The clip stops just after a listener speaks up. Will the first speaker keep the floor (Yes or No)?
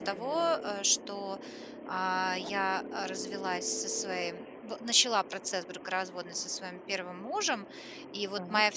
Yes